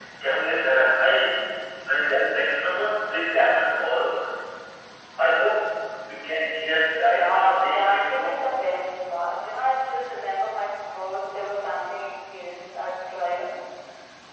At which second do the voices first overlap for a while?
7.0 s

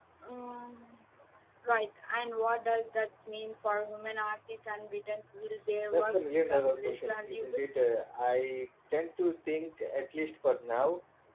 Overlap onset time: 5.8 s

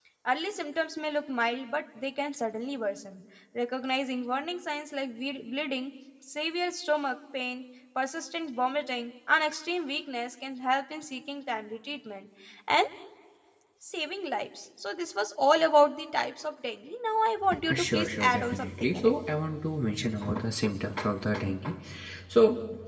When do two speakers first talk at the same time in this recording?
17.5 s

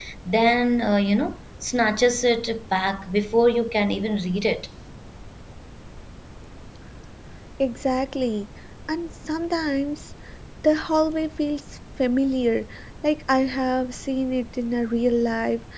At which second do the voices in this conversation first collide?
none

